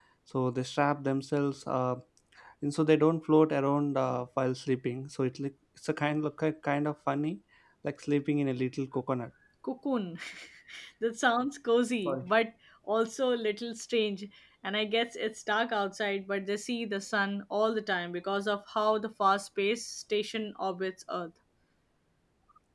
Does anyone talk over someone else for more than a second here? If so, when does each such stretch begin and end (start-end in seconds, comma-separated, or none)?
none